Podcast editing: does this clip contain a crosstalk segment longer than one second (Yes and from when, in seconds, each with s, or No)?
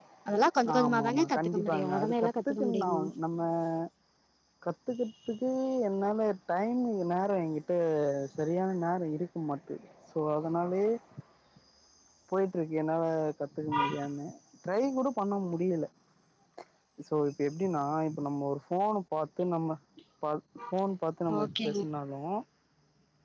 Yes, from 0.7 s